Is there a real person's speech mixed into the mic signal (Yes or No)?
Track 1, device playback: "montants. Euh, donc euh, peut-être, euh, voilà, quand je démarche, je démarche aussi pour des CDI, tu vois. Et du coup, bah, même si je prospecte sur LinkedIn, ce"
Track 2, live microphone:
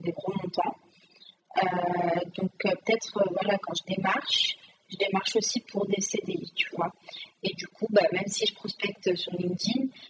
No